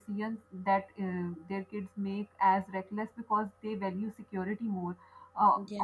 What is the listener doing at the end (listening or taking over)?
listening